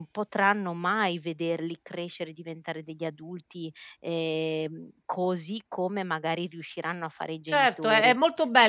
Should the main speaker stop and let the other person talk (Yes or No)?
Yes